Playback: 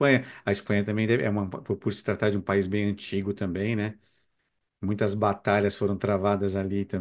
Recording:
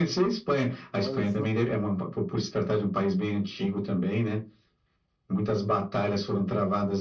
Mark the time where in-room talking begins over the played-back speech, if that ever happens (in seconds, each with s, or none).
0.9 s